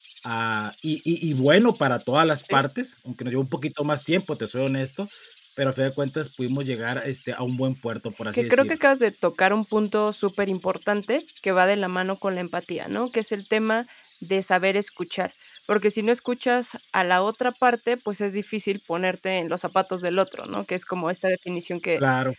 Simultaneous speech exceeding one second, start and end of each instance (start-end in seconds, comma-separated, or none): none